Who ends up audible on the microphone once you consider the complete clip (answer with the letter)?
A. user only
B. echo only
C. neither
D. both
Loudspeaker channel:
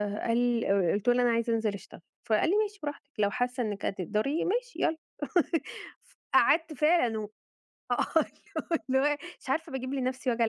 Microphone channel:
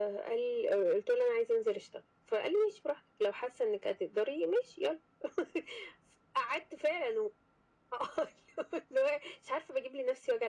B